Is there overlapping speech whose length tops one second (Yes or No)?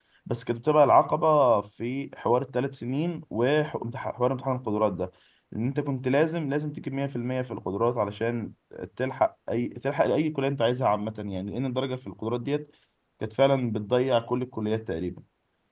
No